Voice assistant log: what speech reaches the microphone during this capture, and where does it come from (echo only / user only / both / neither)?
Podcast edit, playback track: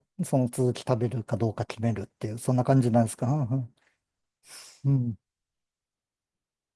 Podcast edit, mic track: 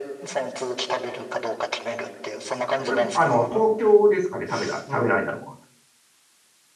both